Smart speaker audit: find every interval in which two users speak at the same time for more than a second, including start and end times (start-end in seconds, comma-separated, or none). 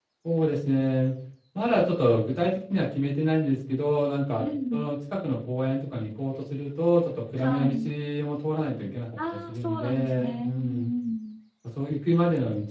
9.3-10.9